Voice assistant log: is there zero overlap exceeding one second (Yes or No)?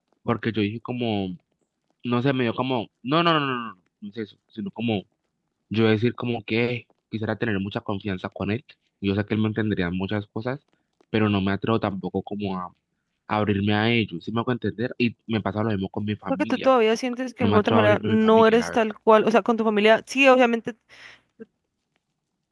No